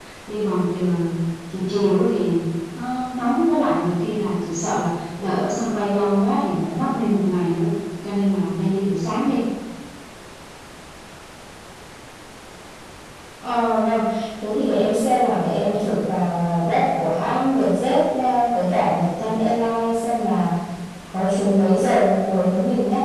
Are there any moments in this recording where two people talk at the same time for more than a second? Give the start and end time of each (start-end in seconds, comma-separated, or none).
none